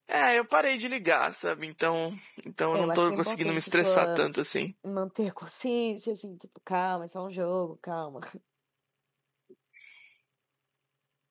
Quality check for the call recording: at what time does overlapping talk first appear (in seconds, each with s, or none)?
2.7 s